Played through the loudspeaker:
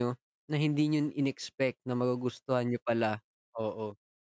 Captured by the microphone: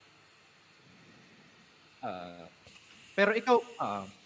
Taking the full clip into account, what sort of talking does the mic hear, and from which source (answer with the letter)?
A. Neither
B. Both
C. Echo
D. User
D